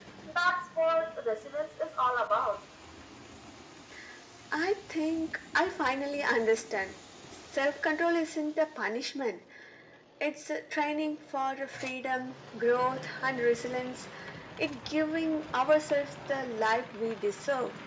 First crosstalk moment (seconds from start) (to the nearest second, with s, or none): none